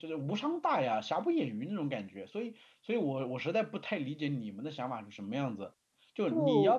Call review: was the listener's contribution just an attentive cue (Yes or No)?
Yes